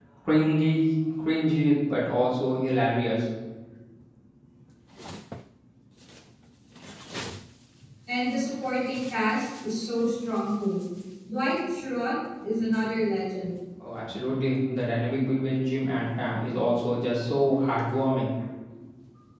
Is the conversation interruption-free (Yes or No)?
Yes